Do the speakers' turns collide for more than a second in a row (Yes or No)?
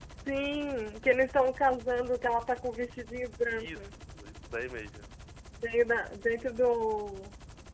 No